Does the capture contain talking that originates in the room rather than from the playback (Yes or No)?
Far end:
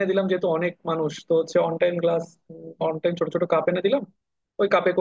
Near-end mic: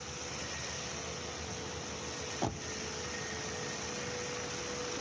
No